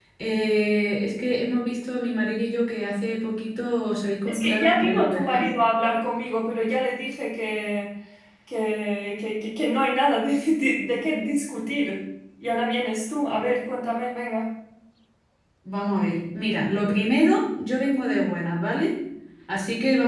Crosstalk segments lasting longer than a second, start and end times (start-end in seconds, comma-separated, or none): 4.3-5.5